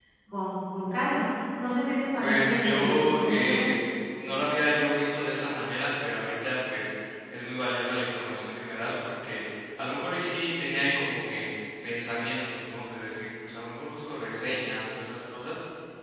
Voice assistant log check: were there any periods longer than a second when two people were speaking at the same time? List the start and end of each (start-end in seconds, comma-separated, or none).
2.2-3.6